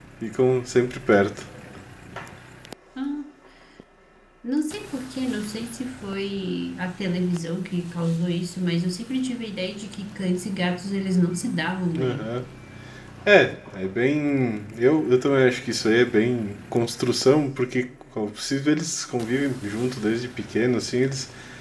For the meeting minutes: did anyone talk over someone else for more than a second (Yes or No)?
No